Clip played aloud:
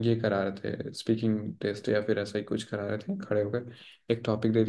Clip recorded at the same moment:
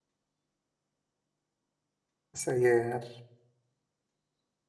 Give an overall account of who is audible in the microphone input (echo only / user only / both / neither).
user only